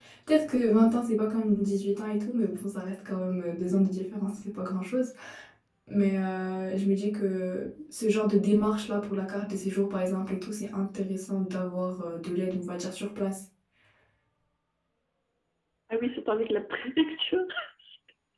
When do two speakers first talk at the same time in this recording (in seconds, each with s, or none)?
none